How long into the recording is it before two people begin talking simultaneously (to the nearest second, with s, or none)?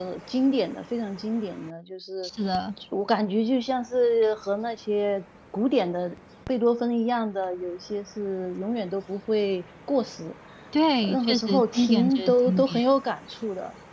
11 s